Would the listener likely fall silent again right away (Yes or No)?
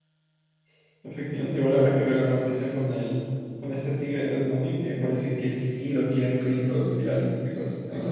No